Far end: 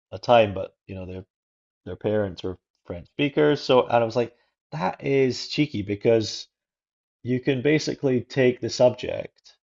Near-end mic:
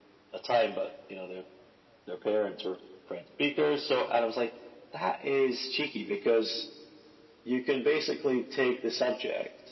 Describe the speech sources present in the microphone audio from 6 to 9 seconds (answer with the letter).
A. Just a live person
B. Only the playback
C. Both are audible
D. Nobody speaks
B